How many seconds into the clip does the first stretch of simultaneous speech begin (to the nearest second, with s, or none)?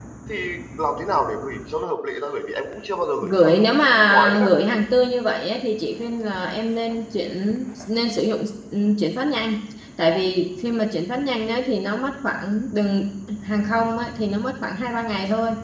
3 s